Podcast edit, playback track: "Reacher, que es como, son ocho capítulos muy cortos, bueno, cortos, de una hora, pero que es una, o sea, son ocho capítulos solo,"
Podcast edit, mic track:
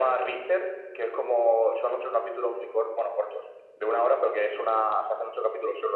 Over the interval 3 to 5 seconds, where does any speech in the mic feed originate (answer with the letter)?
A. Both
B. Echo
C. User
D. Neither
B